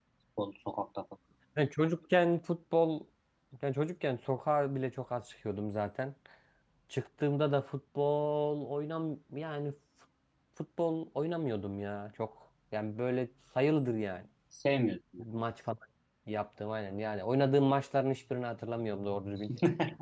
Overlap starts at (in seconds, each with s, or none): none